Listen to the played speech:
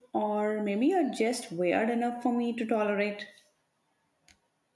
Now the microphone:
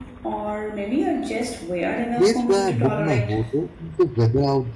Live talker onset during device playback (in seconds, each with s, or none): 1.9 s